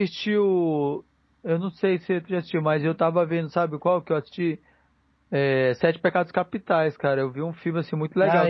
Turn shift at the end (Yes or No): Yes